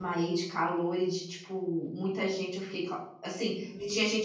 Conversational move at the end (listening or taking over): listening